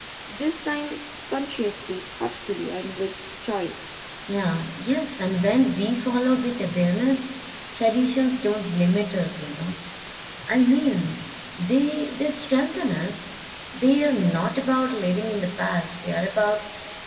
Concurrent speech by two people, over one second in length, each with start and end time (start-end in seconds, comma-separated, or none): none